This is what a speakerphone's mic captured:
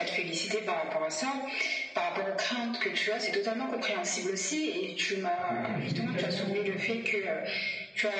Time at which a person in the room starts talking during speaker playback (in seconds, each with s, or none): 5.3 s